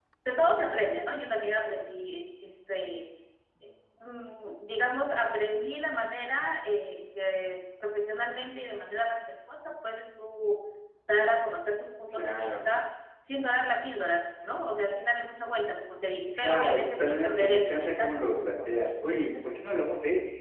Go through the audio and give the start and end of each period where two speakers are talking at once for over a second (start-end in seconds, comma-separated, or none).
16.3-18.7